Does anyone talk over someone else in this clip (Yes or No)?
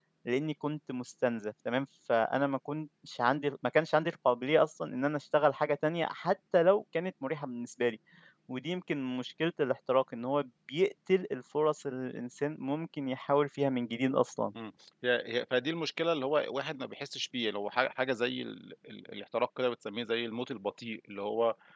No